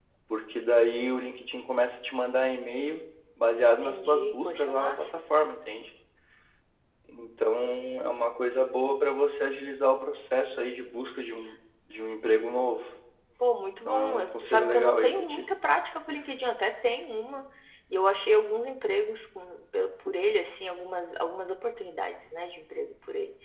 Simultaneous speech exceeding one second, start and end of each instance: 3.8-5.0, 13.8-15.4

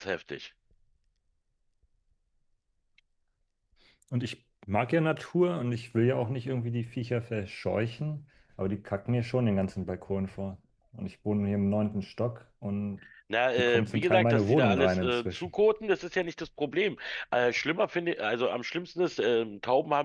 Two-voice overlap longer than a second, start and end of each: 13.6-15.5

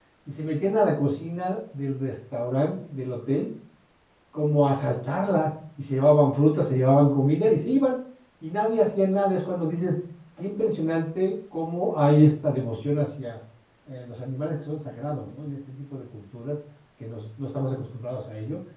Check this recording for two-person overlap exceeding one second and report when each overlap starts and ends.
none

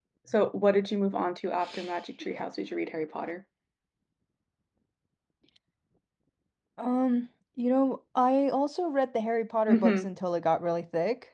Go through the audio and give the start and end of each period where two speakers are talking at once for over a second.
none

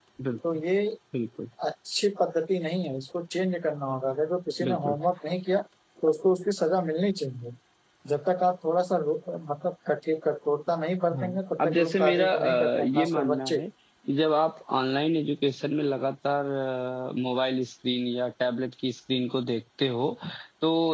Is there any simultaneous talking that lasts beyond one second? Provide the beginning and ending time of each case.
11.2-13.6

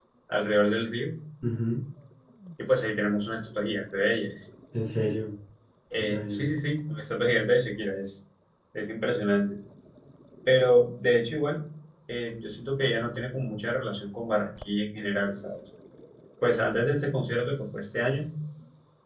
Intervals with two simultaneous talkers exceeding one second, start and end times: none

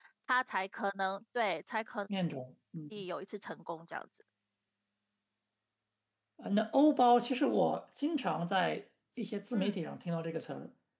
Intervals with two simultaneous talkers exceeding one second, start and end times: none

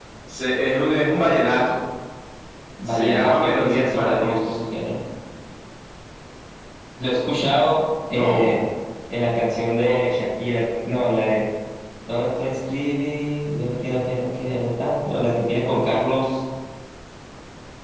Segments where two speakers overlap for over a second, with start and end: 2.9-4.4

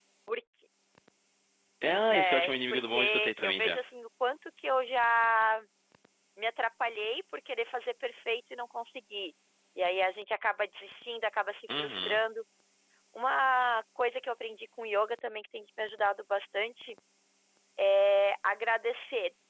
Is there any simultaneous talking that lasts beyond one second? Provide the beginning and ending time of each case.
2.1-3.8

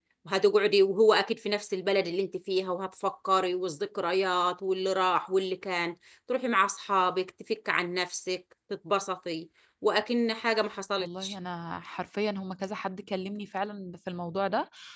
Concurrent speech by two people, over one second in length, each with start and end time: none

